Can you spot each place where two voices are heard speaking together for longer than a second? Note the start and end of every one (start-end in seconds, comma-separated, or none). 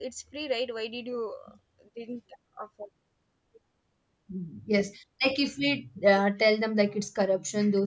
none